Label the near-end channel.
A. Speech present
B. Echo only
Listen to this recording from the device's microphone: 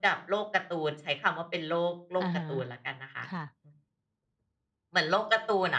A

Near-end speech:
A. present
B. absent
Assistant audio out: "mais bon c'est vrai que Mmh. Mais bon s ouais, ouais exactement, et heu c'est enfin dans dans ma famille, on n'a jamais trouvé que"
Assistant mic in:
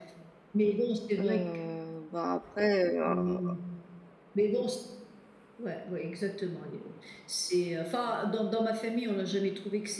A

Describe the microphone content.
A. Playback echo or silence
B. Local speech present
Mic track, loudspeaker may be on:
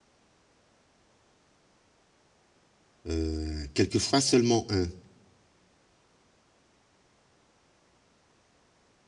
B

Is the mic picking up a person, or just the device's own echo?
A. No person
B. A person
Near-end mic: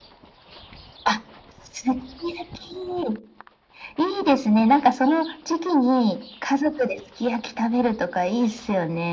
A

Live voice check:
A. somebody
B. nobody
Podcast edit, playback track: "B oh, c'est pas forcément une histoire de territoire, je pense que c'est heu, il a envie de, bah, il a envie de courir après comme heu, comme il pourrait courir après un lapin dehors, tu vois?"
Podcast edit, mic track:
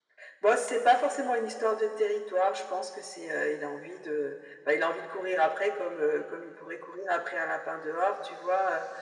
B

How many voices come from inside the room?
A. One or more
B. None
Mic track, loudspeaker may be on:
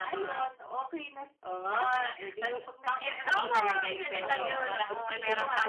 A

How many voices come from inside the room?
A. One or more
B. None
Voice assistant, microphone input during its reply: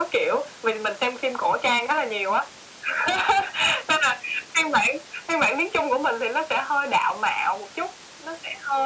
B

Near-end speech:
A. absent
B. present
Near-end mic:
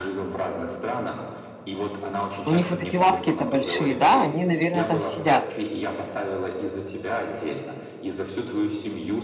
B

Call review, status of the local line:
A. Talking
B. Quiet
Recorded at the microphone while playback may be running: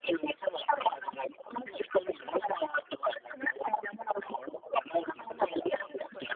B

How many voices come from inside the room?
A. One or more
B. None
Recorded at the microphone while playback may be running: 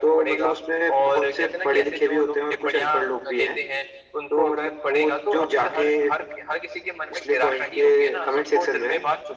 B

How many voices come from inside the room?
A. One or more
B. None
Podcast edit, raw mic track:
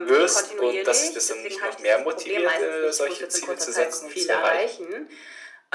B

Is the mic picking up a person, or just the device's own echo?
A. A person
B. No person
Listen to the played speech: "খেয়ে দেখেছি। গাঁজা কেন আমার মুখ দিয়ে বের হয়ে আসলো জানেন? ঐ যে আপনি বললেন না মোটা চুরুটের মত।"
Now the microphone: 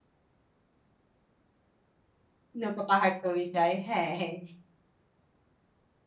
A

